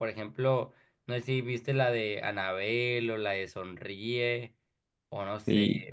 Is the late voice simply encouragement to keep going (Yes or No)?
No